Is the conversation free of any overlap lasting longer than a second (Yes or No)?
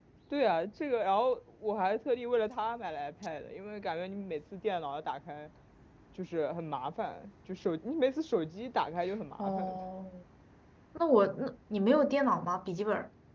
Yes